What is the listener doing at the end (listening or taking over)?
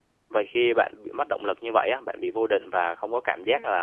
listening